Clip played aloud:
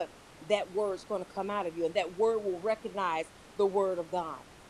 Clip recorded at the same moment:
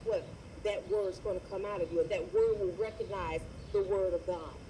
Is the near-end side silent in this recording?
Yes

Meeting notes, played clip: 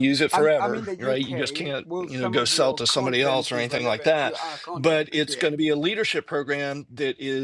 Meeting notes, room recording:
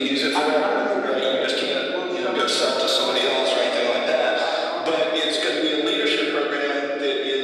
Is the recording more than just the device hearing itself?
No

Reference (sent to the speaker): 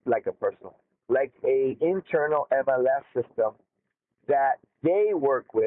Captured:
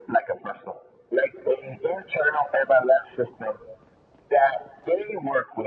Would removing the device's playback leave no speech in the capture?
Yes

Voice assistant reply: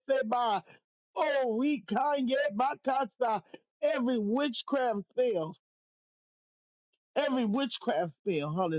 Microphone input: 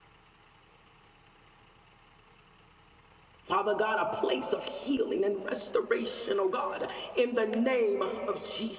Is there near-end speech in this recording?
Yes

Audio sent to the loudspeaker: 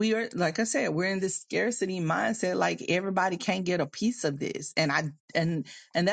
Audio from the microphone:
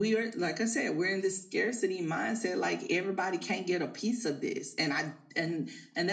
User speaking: No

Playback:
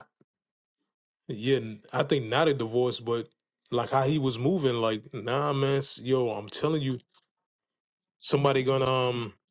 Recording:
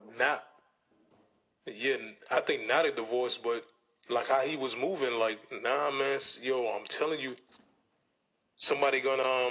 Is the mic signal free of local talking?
Yes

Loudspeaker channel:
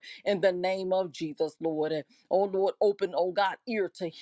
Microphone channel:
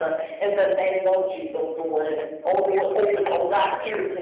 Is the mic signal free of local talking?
Yes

